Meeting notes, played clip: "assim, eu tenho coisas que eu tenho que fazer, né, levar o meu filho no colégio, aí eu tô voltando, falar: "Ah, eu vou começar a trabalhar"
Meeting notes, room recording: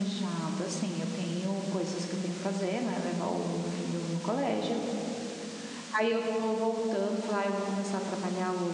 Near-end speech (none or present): none